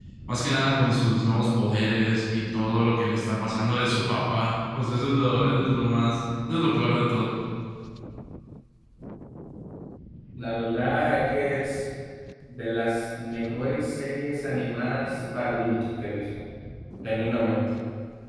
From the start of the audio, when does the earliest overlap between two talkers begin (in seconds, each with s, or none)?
none